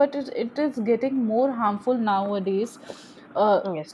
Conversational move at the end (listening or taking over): listening